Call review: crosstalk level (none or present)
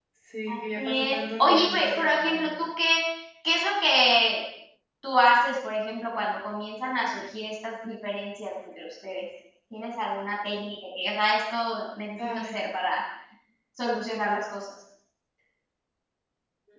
present